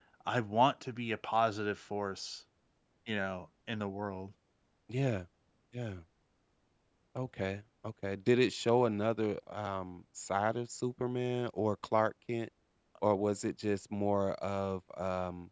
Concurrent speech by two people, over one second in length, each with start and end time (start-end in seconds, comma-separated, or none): none